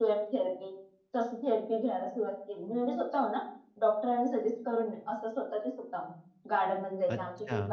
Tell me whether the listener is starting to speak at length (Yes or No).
No